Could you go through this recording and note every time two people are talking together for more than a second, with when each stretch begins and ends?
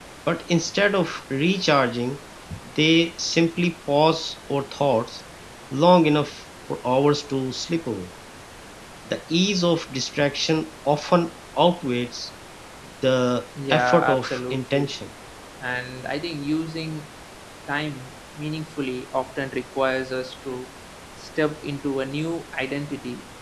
13.7-14.9

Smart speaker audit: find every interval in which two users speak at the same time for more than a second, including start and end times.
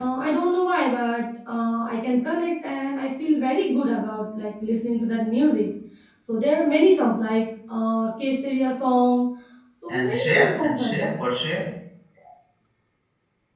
9.9-11.2

